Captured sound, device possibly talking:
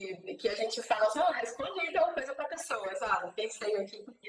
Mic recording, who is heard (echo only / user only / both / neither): echo only